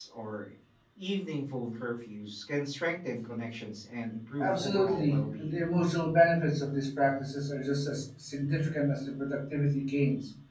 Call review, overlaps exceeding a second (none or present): present